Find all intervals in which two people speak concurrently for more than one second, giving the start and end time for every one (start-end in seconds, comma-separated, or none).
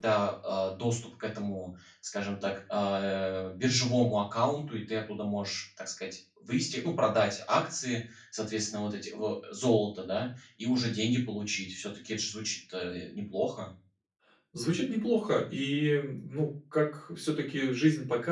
none